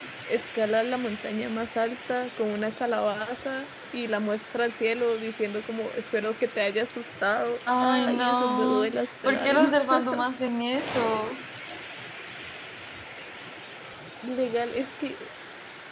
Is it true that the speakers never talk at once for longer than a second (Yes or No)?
No